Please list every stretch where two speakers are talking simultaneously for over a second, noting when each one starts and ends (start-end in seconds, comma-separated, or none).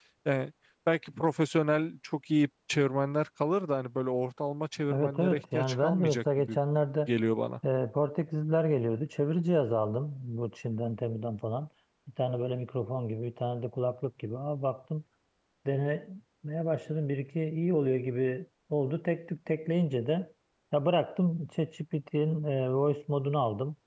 4.9-6.6